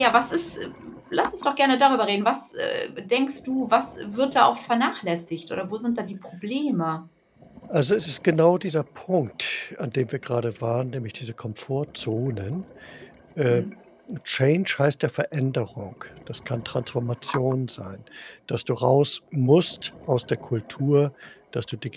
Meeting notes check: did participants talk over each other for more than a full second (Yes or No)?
No